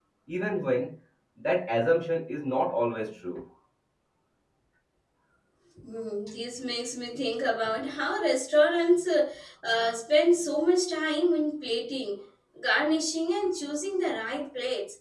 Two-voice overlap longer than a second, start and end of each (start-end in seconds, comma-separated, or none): none